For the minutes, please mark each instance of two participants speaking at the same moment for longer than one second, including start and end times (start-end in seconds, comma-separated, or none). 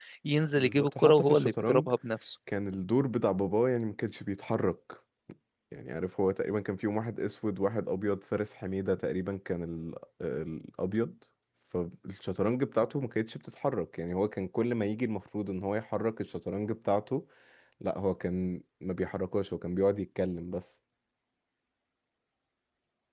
0.6-1.9